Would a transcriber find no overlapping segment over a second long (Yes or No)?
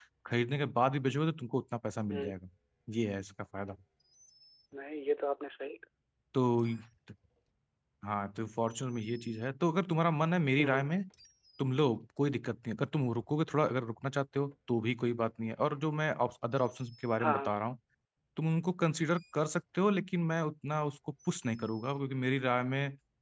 Yes